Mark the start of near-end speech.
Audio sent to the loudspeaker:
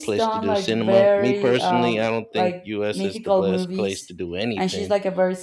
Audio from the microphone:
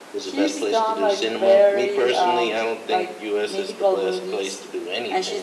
none

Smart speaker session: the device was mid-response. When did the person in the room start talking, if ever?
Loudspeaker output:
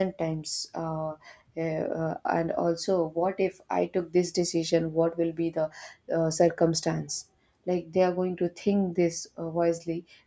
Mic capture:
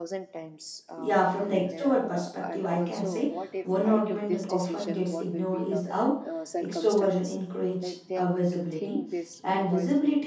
1 s

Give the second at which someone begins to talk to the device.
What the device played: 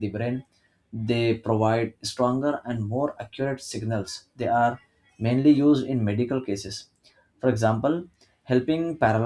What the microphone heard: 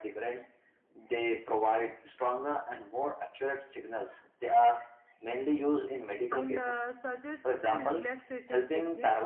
6 s

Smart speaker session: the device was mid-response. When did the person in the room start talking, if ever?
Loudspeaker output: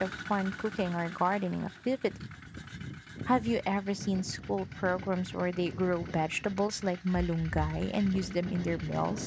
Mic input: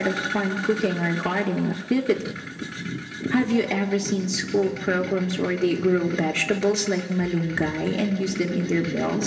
none

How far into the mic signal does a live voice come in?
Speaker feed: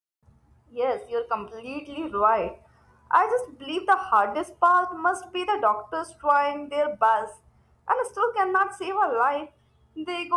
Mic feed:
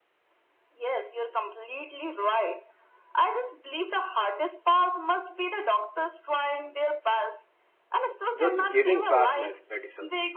8 s

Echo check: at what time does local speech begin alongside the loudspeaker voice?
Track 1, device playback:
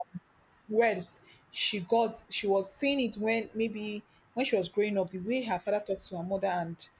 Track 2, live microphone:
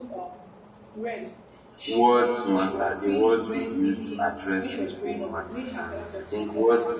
2 s

